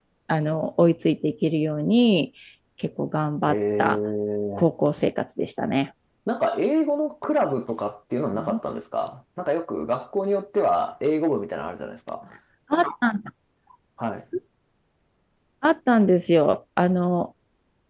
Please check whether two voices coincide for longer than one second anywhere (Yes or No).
No